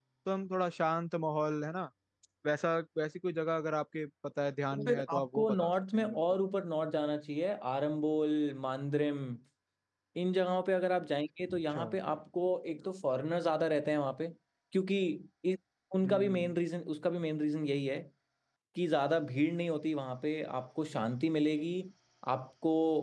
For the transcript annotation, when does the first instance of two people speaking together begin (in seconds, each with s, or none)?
4.7 s